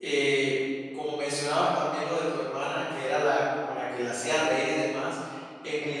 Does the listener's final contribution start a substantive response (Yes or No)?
No